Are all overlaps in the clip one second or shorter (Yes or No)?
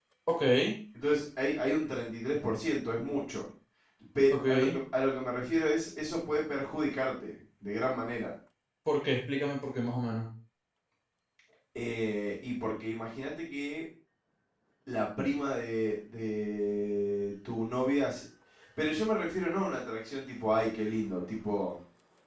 Yes